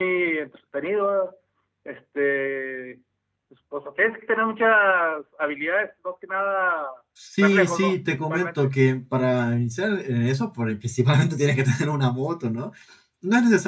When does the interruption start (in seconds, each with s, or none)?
7.4 s